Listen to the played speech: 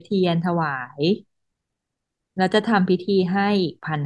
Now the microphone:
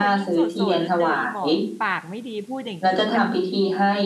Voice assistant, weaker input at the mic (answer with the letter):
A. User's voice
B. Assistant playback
A